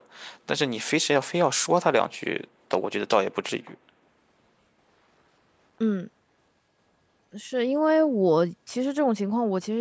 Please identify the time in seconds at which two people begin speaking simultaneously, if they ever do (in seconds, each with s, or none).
none